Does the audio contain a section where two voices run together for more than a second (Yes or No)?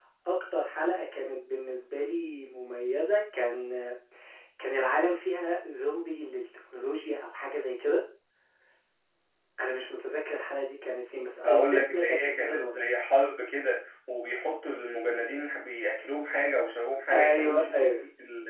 Yes